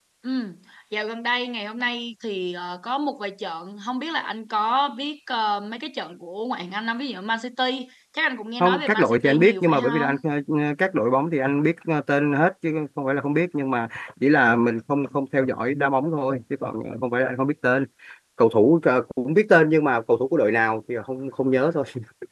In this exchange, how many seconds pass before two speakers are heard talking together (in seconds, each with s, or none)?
8.6 s